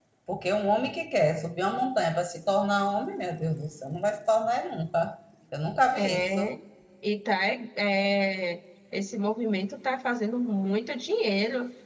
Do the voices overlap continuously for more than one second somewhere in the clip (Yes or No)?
No